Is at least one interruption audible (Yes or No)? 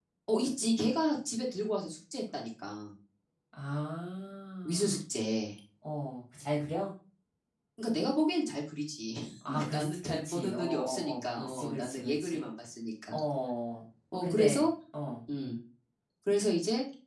Yes